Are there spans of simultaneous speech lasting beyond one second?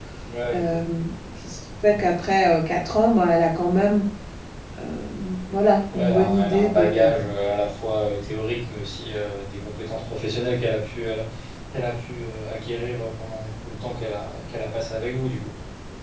Yes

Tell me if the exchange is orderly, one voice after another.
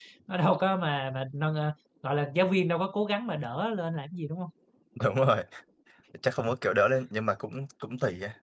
Yes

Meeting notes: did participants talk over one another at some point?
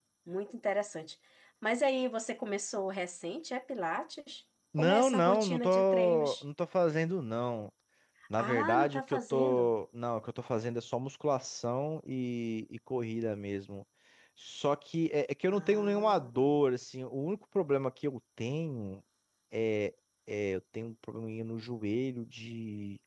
Yes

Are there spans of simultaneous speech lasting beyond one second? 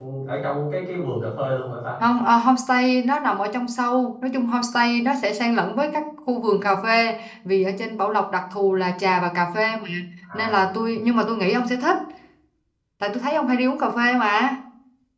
No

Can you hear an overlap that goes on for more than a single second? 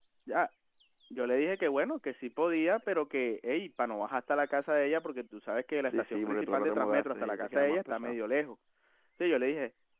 Yes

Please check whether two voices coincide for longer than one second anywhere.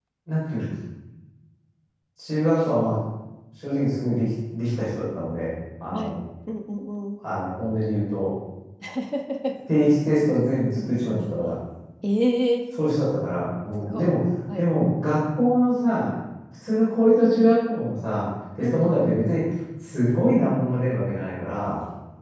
No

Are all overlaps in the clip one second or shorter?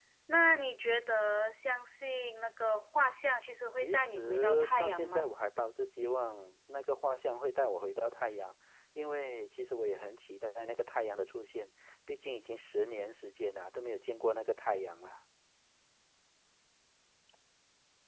No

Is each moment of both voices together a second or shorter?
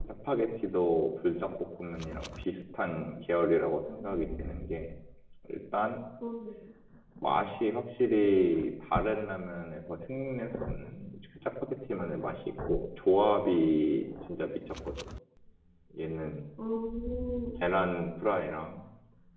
Yes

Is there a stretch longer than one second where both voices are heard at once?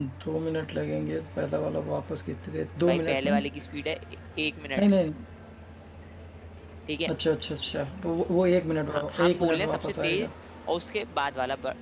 Yes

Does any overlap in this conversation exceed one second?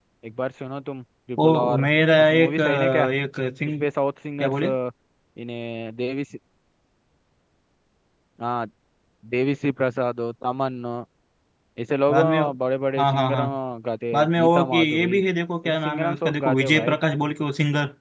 Yes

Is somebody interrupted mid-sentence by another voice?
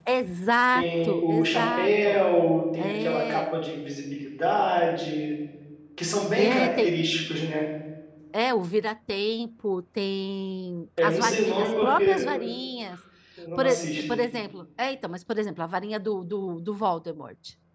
Yes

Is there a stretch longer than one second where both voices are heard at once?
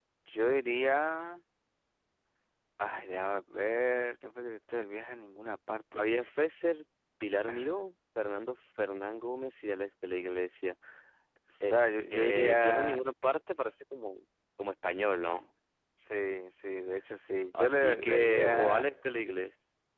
Yes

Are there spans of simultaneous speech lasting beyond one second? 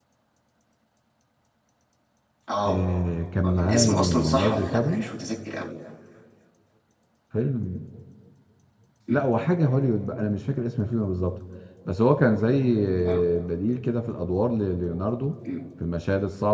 Yes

